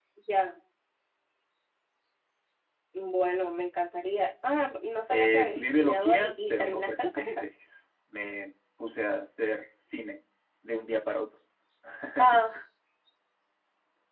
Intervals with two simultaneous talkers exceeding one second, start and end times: 5.1-7.5

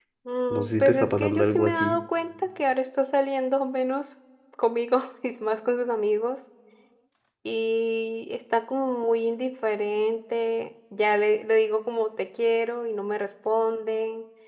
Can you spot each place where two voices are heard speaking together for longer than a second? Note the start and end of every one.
0.5-2.0

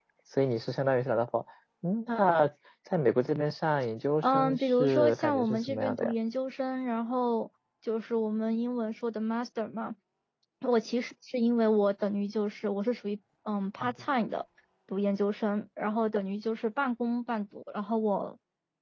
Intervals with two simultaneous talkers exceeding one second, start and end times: 4.2-6.1

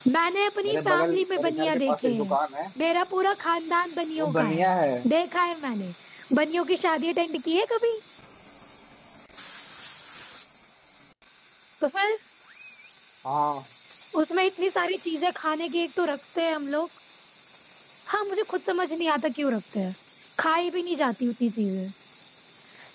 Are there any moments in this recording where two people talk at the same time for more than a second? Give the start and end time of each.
0.6-2.4

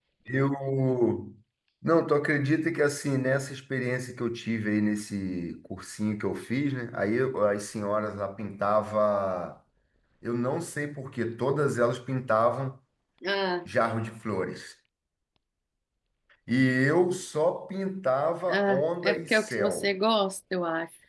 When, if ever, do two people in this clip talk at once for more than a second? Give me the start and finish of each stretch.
18.5-19.9

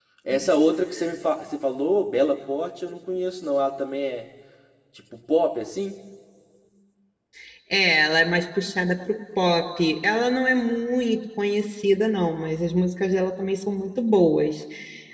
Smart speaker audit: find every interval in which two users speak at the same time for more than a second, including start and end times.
none

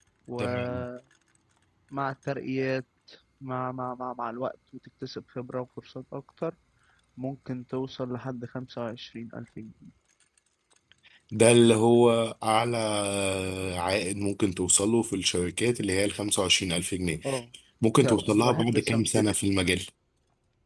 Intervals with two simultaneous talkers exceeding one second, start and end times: 18.0-19.3

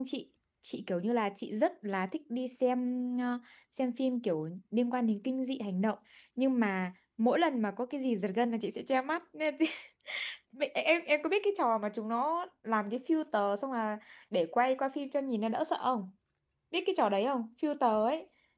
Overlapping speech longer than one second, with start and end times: none

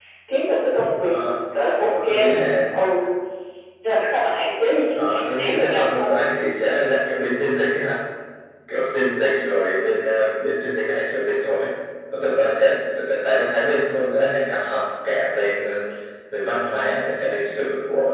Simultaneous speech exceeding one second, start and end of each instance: 5.0-6.2

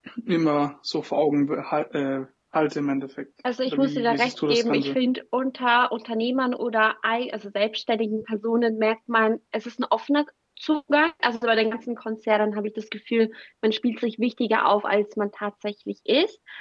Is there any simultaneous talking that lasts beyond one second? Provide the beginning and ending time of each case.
3.7-5.0

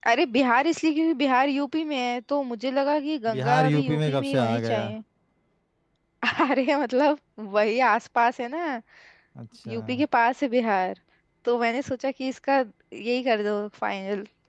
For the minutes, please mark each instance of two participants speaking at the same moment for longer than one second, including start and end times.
3.3-4.9

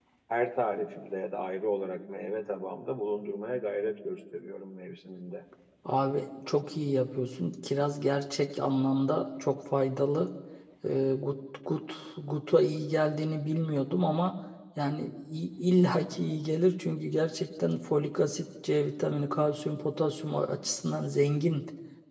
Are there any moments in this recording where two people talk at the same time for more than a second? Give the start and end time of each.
none

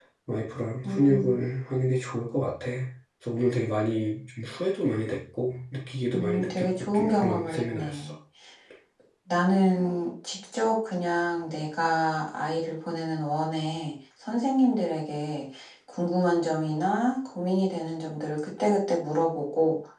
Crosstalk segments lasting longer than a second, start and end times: 6.1-8.1

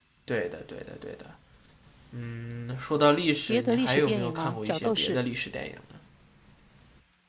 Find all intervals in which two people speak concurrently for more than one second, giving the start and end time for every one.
3.5-5.2

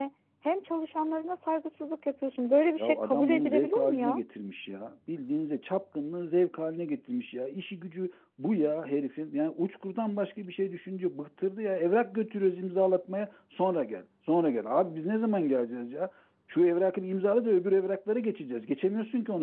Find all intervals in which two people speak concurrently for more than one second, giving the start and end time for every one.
2.8-4.2

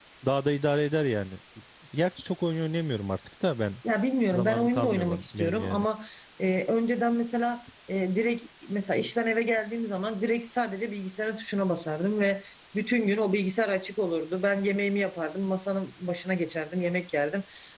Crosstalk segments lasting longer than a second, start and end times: 4.3-5.8

